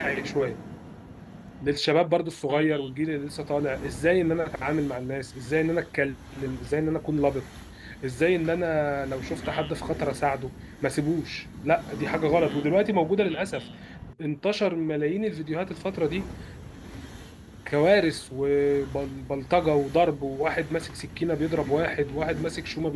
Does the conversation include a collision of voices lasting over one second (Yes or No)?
No